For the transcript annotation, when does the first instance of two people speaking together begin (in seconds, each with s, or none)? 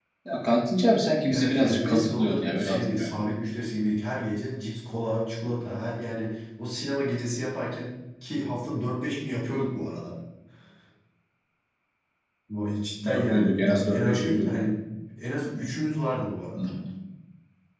1.3 s